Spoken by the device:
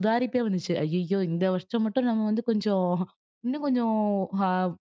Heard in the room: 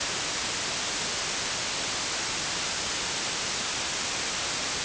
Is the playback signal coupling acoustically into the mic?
No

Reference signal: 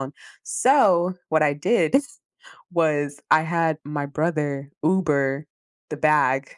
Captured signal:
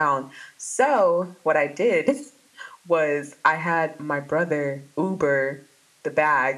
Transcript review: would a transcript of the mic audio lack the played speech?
No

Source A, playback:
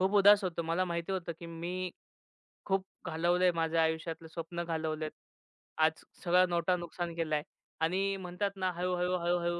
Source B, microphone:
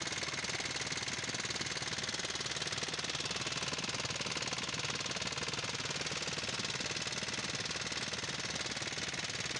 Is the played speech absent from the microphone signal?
Yes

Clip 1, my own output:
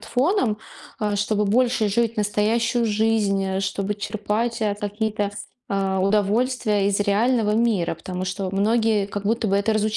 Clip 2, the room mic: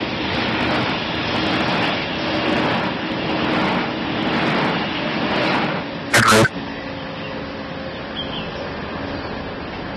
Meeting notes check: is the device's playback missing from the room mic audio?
Yes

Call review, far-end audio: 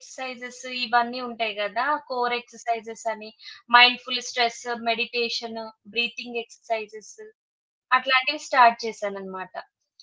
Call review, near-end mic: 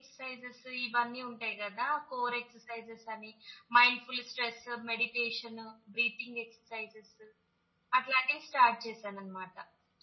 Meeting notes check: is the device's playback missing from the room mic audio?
No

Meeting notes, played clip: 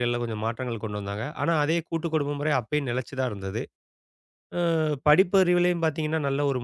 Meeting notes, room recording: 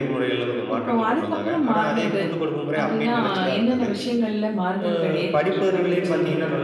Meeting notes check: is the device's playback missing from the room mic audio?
No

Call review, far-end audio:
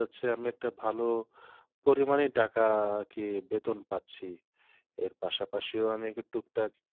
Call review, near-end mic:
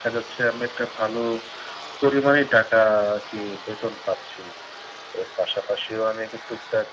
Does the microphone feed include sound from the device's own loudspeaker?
Yes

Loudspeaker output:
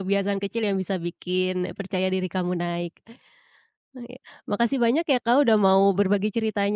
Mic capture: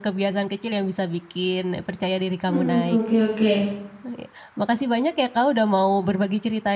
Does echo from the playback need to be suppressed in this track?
Yes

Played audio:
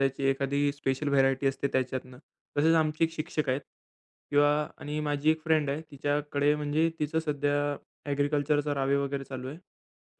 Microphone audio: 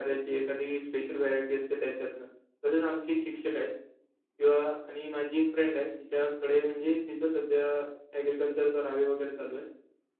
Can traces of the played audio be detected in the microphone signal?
Yes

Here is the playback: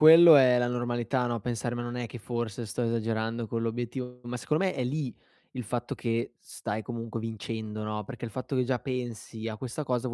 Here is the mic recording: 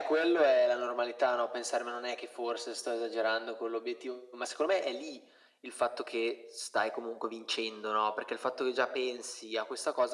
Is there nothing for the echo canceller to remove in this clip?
No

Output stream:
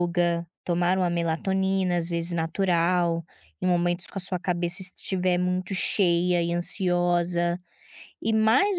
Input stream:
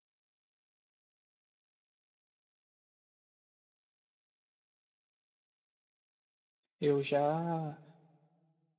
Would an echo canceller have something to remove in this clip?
No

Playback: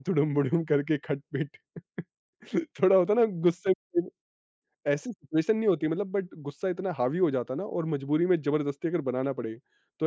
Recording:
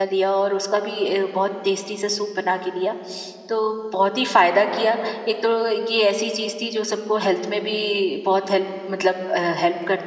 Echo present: No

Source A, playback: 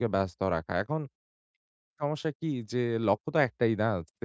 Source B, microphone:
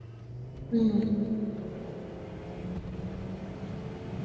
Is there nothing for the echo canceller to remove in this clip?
Yes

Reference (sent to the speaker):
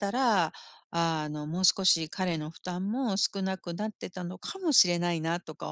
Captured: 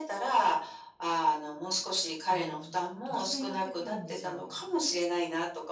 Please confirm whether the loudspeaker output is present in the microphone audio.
Yes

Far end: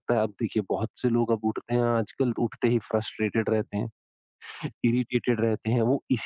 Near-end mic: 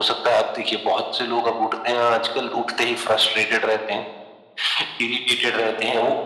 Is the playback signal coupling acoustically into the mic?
Yes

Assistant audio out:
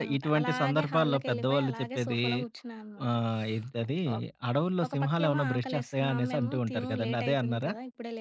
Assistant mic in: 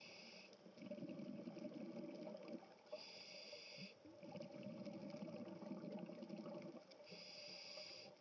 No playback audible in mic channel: Yes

